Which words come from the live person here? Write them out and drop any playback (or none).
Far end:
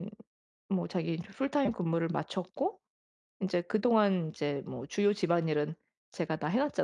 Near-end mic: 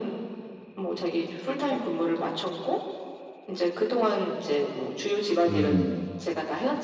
음.